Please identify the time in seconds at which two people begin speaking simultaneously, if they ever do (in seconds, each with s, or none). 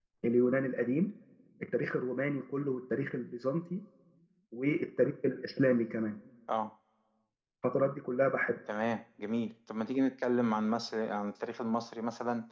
none